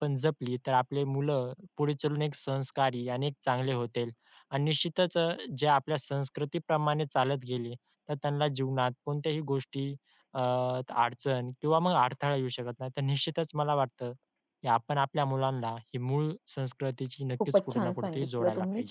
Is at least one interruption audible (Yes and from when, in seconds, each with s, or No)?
Yes, from 17.4 s